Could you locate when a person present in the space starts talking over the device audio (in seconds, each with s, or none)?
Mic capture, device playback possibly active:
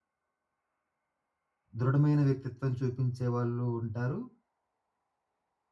1.8 s